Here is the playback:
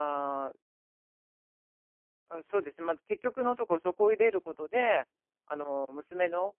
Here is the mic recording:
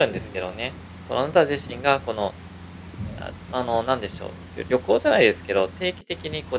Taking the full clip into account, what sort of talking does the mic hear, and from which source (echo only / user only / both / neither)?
user only